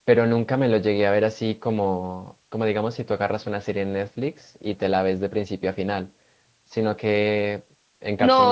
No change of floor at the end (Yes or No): No